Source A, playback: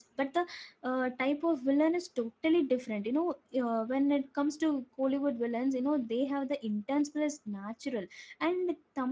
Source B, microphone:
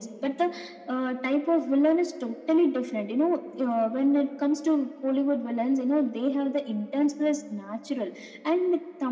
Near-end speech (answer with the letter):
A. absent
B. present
A